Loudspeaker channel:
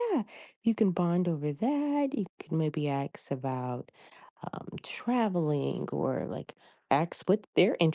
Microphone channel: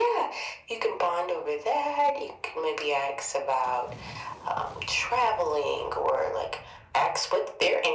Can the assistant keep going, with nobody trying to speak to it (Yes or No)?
Yes